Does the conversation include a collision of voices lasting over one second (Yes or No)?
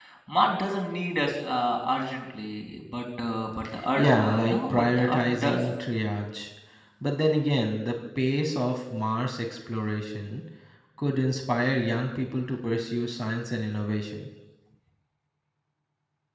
Yes